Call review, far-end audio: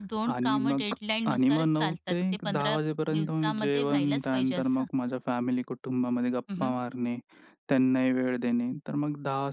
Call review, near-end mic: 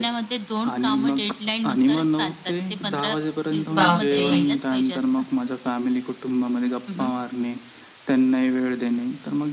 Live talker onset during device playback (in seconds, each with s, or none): 3.8 s